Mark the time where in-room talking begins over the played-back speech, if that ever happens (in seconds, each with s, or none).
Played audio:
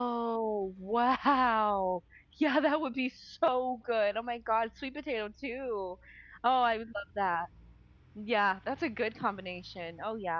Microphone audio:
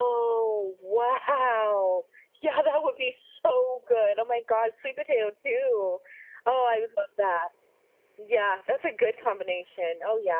none